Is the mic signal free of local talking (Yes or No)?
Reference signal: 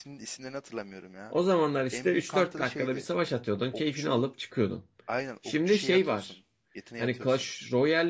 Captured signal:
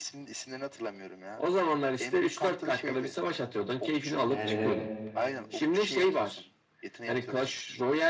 No